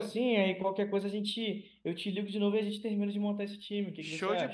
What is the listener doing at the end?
taking over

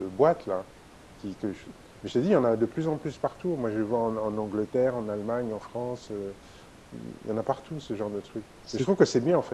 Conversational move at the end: listening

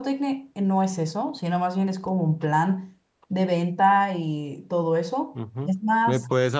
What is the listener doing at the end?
taking over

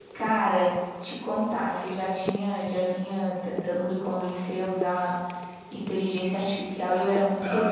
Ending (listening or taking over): taking over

